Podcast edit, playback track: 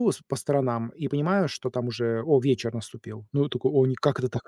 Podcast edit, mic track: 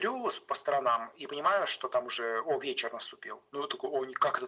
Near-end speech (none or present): none